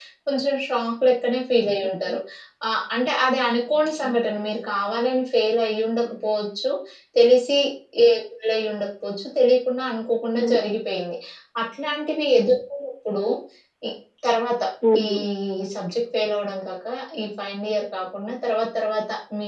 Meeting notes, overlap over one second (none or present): none